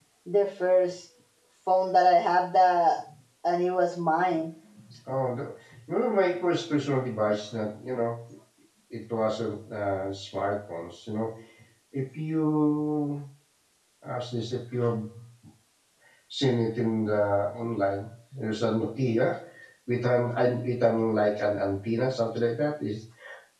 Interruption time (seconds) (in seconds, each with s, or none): none